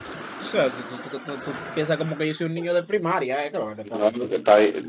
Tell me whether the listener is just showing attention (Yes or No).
No